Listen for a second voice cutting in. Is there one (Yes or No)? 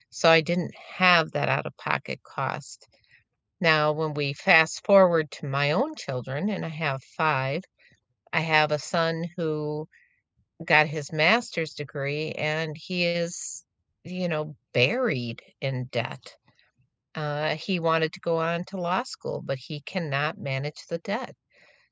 No